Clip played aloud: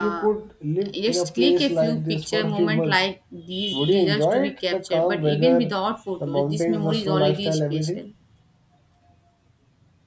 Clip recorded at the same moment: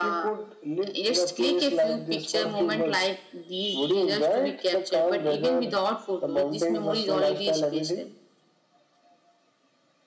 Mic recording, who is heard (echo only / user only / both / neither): echo only